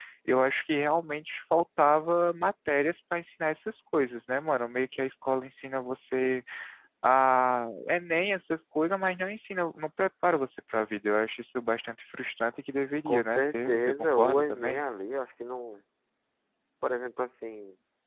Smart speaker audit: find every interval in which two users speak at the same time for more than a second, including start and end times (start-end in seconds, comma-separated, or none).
13.1-14.8